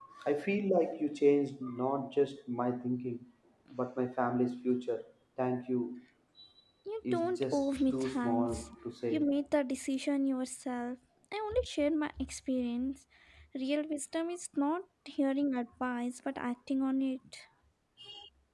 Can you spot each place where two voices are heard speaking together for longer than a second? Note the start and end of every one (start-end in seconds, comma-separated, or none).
7.1-8.7